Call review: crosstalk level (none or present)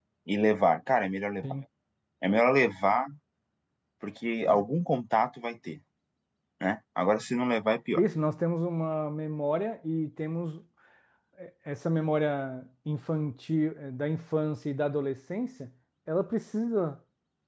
none